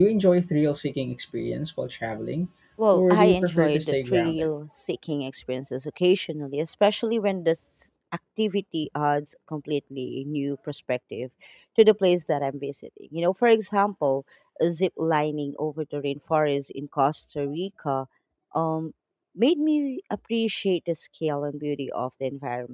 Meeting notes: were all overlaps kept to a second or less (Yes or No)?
No